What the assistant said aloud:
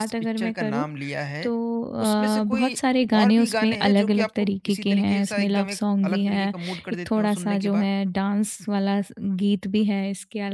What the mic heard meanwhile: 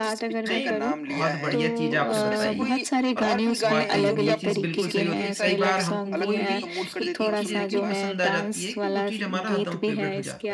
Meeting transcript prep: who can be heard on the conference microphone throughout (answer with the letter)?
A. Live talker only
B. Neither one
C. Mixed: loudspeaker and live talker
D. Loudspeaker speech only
C